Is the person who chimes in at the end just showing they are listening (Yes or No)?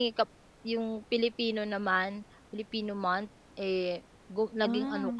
Yes